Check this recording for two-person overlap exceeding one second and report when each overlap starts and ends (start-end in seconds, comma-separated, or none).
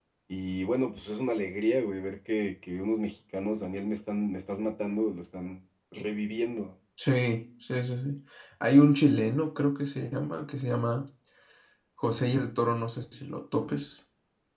none